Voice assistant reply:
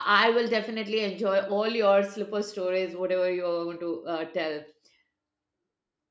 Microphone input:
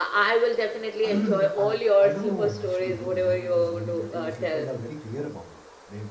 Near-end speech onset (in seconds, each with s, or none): 1.0 s